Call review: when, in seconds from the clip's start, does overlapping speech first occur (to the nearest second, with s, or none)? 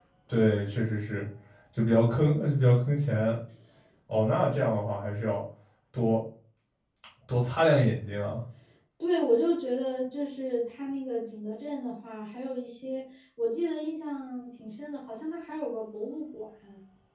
none